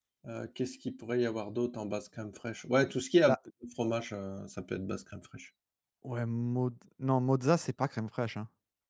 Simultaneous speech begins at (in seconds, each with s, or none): none